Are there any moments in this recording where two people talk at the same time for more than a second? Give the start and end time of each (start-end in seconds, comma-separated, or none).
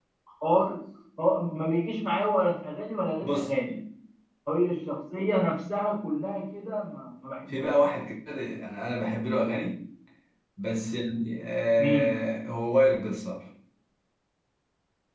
none